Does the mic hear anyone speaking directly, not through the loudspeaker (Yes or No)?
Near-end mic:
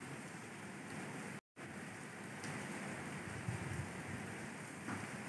No